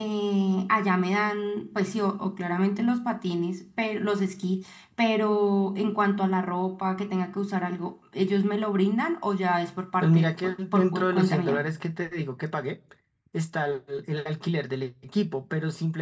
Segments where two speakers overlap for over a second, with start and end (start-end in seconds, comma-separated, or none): 10.0-11.6